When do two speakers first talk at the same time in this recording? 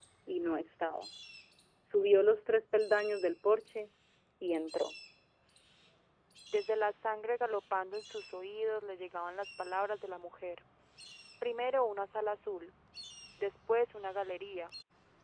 none

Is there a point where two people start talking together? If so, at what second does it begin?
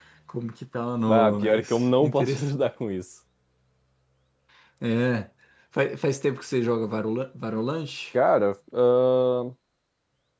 1.1 s

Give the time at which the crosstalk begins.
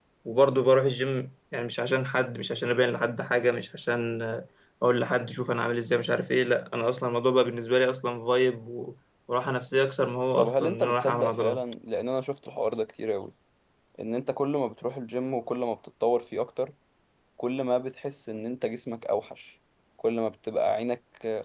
10.4 s

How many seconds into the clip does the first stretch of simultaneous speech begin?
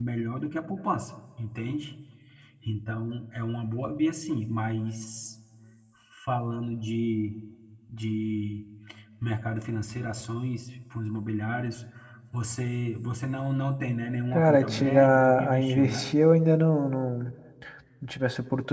14.3 s

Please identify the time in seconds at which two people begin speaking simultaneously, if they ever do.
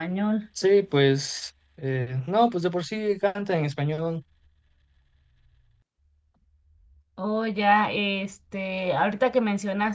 none

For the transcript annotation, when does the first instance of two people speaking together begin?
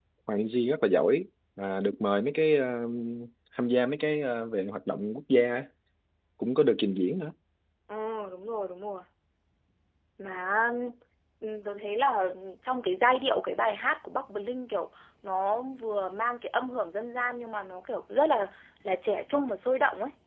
none

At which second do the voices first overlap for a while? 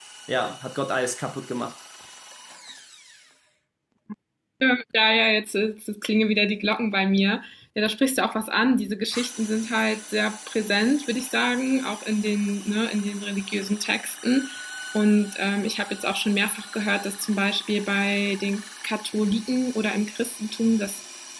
none

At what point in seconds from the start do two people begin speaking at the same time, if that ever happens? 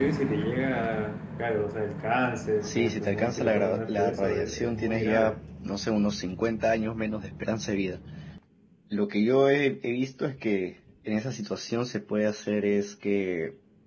2.6 s

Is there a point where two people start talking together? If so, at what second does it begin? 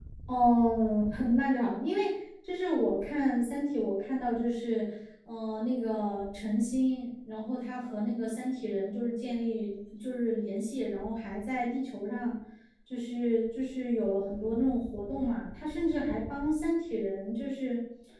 none

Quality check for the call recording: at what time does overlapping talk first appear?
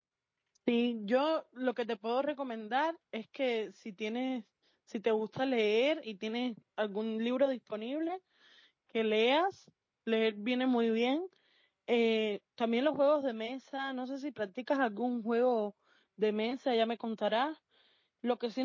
none

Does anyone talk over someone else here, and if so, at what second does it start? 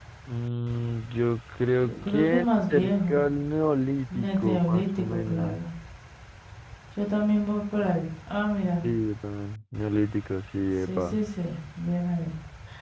1.8 s

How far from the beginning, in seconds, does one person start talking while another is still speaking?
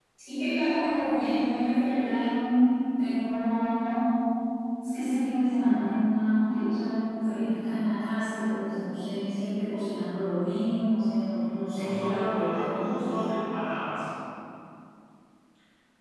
11.7 s

